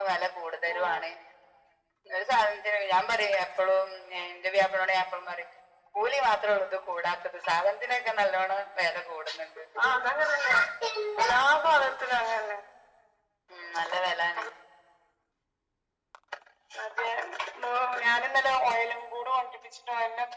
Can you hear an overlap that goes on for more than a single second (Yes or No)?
No